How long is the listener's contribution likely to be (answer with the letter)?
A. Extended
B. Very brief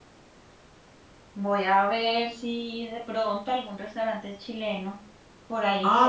A